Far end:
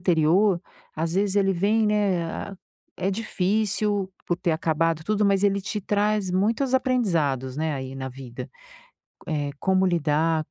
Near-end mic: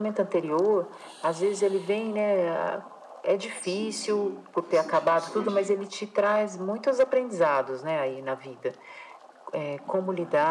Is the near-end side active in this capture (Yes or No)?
Yes